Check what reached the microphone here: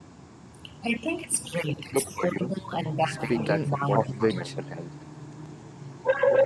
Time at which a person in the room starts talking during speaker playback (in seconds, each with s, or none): 3.0 s